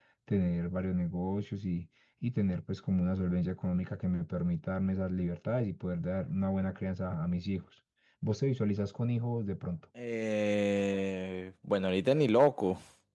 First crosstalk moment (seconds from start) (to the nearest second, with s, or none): none